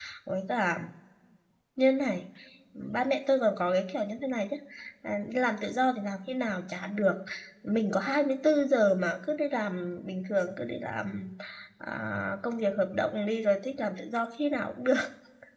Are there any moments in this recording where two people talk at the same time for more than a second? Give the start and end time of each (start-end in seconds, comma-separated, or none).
none